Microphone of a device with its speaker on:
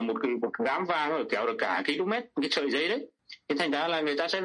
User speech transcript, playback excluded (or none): none